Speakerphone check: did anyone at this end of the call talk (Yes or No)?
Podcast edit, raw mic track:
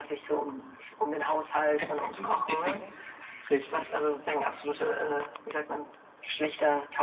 Yes